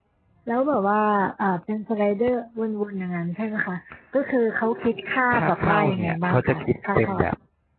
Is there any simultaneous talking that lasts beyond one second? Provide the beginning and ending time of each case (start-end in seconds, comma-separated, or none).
5.3-7.2